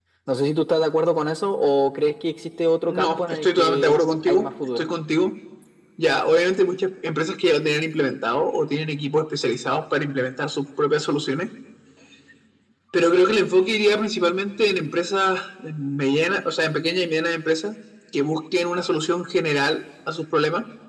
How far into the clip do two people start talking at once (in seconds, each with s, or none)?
2.9 s